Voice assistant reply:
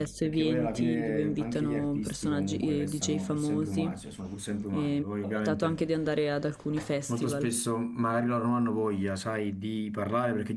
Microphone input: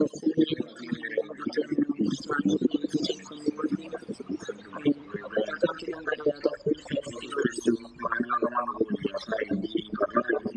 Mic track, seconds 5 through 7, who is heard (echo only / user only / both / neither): echo only